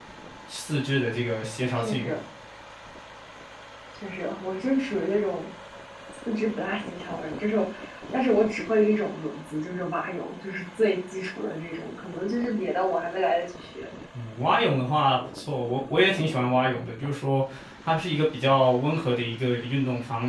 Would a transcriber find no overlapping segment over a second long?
Yes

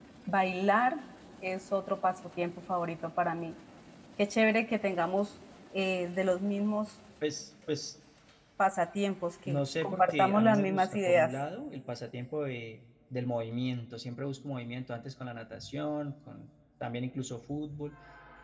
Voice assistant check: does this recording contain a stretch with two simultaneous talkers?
Yes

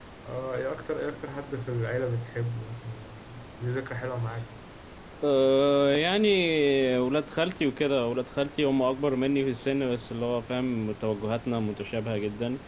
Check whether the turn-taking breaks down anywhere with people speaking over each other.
No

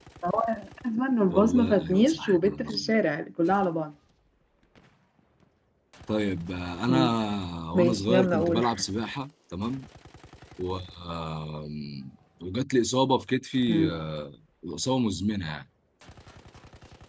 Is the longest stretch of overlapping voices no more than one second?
No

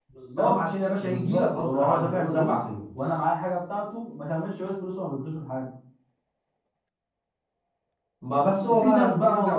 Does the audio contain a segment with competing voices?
Yes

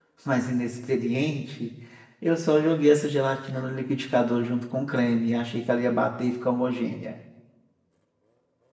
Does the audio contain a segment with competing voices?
No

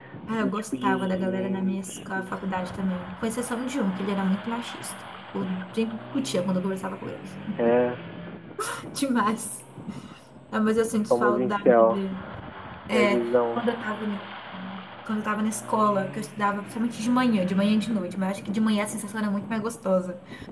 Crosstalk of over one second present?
Yes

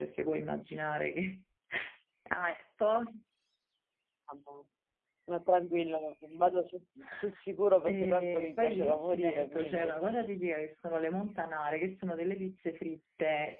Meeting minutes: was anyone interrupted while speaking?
Yes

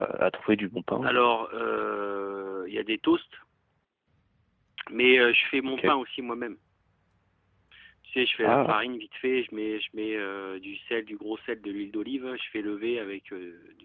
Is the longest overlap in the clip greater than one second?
No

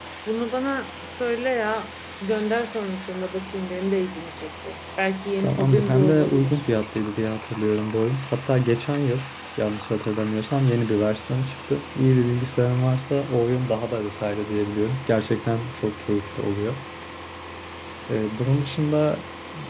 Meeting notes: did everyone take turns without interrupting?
No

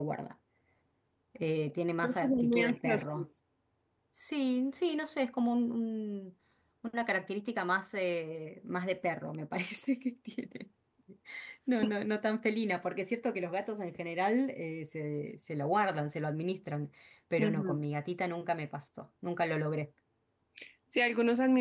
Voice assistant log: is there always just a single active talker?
No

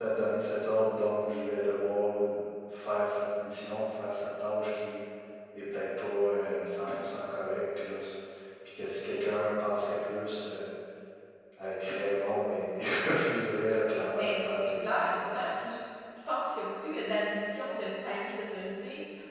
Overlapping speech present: Yes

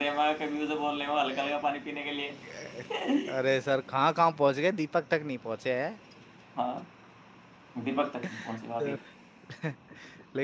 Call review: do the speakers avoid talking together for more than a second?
Yes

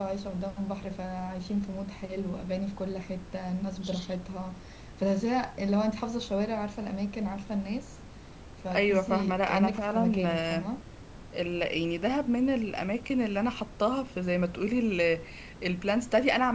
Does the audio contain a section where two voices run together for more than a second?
Yes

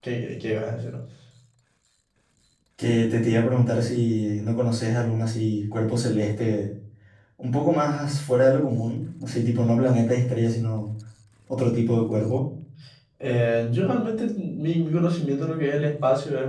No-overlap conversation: Yes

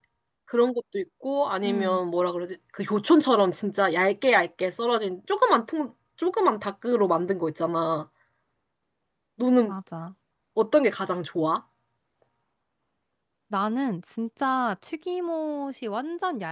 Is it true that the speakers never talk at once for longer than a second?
Yes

